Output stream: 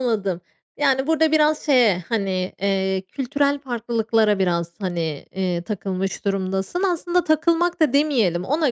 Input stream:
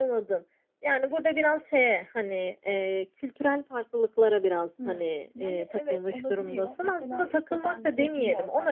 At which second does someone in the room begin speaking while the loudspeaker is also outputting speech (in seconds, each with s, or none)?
4.8 s